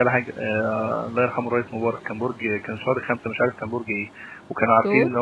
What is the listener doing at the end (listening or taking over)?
listening